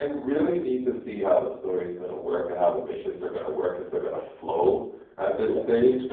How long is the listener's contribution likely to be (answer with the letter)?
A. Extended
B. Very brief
B